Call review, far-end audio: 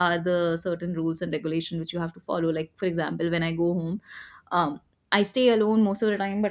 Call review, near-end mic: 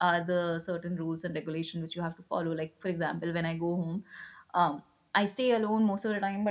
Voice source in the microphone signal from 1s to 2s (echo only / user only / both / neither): echo only